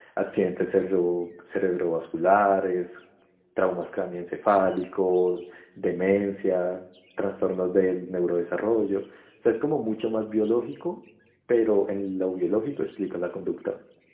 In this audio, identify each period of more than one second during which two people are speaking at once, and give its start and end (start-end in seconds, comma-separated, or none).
none